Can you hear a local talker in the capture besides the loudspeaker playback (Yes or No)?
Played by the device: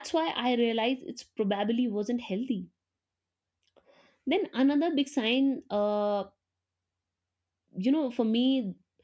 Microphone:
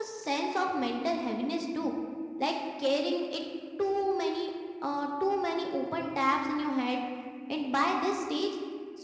Yes